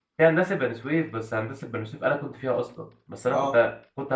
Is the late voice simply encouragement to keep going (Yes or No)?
Yes